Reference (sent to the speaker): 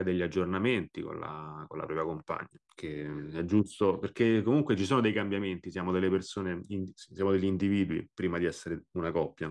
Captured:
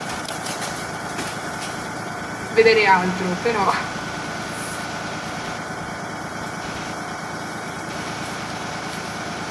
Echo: none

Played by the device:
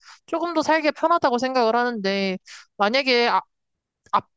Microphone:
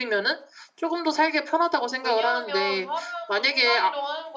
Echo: present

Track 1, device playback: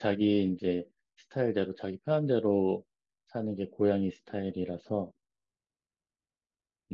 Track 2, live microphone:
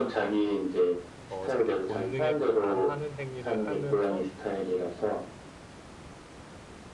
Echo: present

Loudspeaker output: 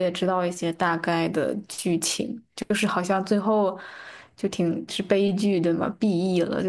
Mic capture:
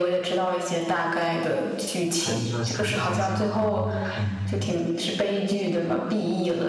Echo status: present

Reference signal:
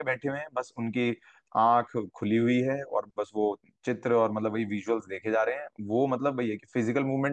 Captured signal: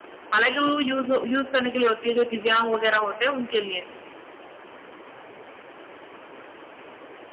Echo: none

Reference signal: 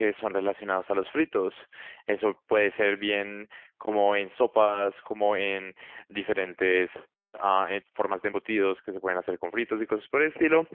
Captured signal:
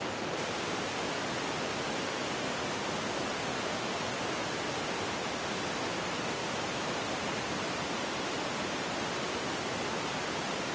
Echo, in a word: none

